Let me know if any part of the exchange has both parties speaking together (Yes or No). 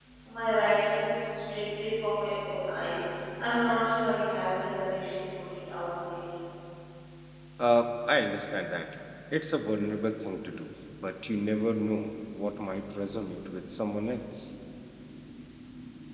No